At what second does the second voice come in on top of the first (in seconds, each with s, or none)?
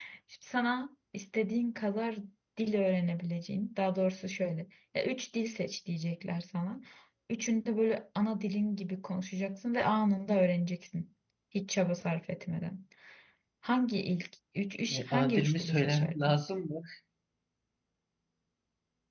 14.9 s